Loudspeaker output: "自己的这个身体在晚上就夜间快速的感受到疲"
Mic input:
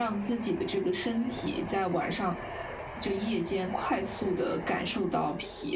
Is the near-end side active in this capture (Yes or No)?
No